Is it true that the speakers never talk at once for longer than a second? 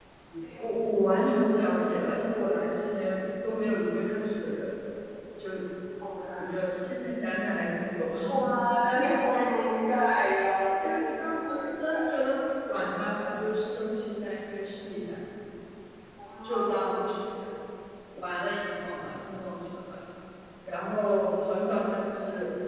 No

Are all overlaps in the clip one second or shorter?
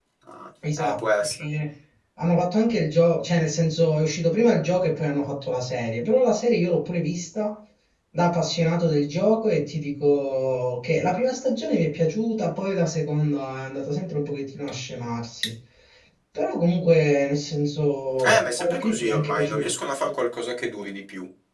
No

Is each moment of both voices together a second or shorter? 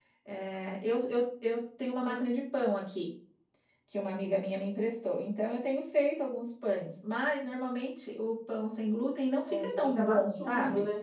No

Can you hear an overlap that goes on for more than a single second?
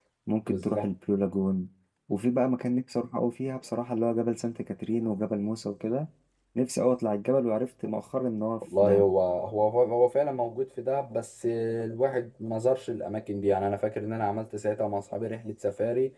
No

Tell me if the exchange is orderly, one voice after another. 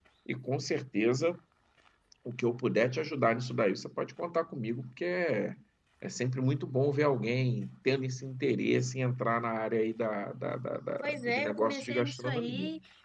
No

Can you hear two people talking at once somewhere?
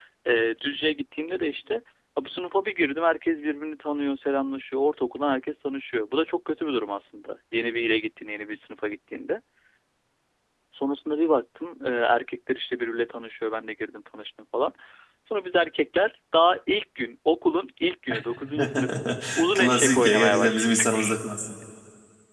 Yes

